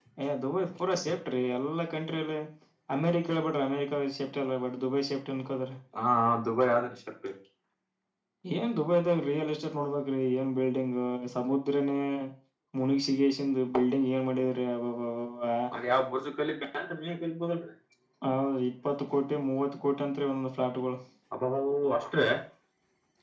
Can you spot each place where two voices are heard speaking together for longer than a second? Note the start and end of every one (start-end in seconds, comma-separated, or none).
none